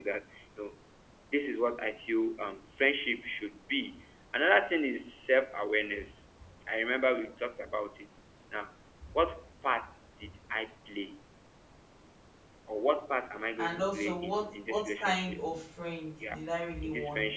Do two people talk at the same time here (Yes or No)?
Yes